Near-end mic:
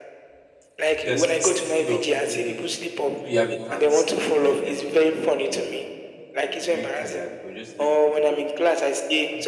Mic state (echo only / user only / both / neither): both